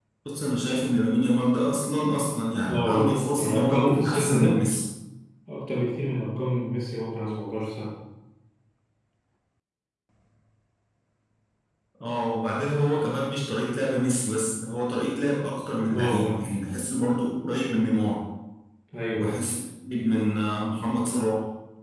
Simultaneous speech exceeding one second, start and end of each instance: 2.7-4.6

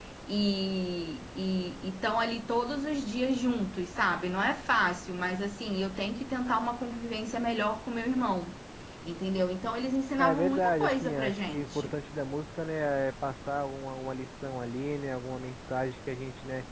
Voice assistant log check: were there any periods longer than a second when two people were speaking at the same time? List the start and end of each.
10.2-12.0

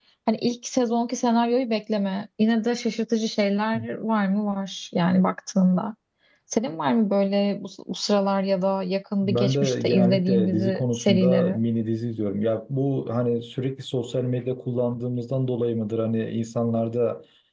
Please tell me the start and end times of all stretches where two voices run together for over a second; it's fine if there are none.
9.2-11.5

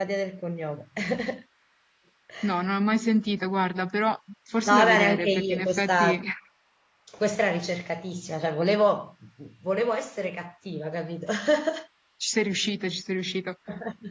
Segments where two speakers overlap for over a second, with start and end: 4.7-6.2

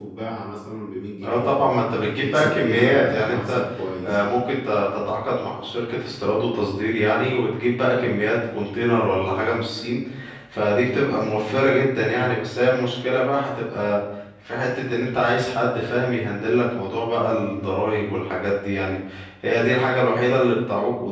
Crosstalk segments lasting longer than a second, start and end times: 1.2-3.6

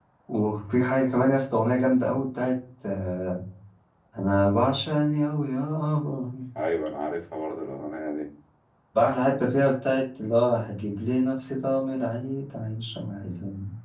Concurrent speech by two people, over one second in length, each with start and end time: none

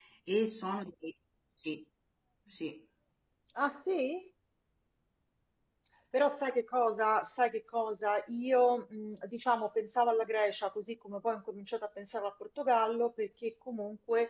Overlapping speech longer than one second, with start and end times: none

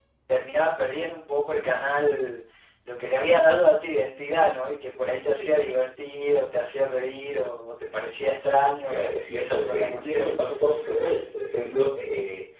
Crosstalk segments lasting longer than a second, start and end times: 8.9-10.3

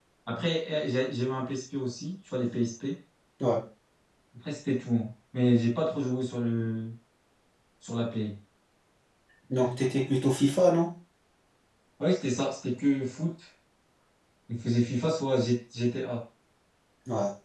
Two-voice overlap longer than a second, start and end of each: none

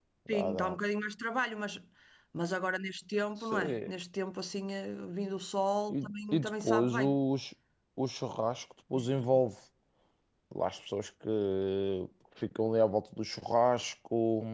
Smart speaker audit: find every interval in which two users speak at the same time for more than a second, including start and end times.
5.9-7.2

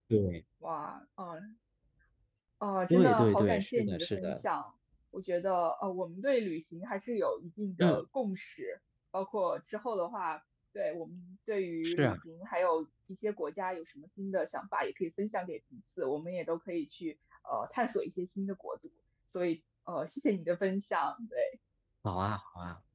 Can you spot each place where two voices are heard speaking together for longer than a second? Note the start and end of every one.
2.9-4.4

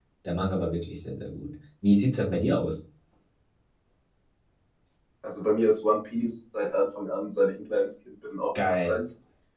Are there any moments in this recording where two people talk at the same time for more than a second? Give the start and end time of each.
none

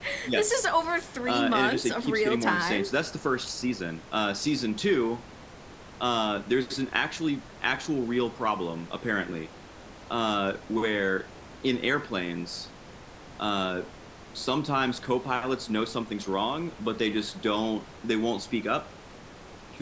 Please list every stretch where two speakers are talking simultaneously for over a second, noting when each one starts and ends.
1.3-2.9

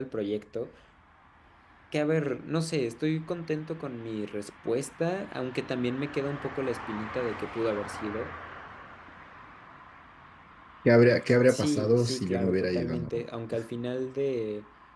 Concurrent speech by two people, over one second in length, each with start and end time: 11.5-13.1

